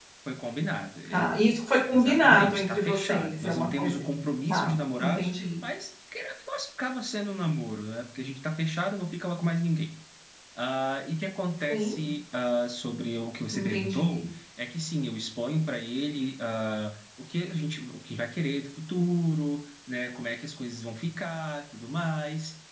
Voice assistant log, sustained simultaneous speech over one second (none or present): present